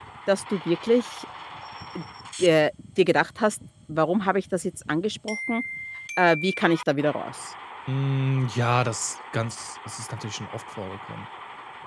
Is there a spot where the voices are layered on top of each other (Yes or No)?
No